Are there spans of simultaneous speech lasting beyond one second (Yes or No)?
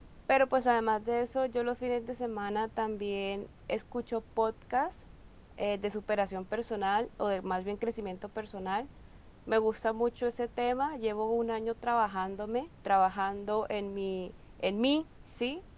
No